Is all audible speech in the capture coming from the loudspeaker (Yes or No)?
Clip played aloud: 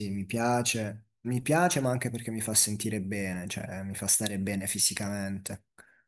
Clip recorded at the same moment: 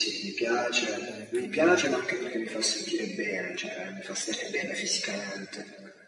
No